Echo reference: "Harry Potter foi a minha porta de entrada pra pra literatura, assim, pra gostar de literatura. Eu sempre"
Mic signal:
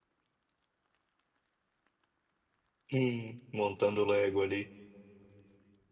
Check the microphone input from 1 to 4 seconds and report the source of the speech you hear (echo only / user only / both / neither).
user only